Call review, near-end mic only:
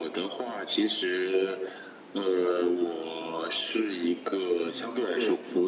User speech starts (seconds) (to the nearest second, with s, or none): 5 s